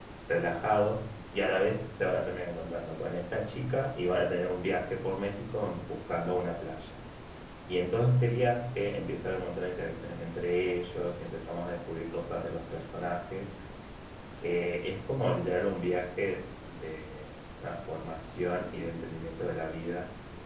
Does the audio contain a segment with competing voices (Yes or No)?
No